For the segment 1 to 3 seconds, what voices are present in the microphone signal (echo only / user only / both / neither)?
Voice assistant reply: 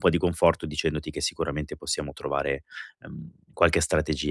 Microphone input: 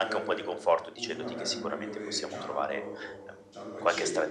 both